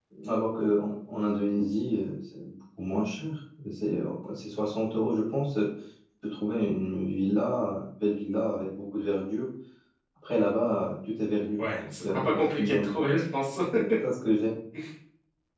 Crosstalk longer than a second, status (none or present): present